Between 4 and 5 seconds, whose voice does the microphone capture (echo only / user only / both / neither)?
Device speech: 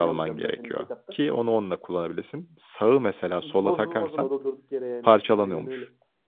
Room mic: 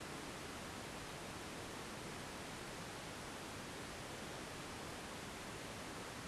neither